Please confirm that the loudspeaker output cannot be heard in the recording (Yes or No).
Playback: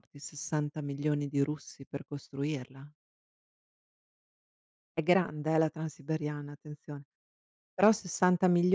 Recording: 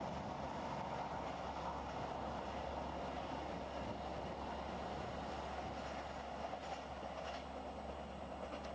Yes